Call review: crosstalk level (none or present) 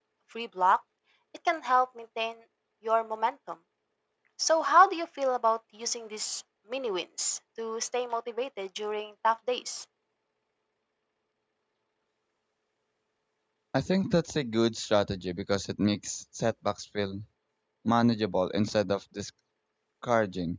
none